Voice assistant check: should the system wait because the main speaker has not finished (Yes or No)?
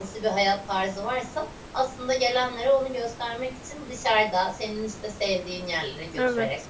Yes